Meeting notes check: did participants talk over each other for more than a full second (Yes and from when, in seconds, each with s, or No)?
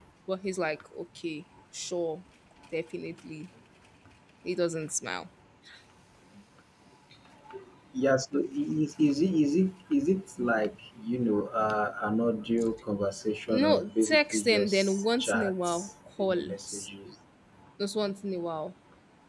Yes, from 13.5 s